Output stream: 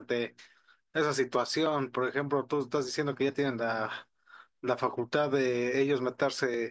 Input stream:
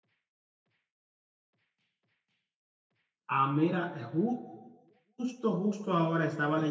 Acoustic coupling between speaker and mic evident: No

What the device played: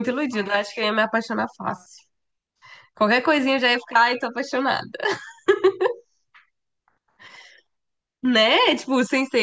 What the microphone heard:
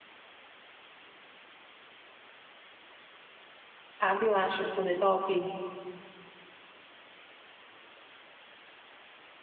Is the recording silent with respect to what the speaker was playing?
Yes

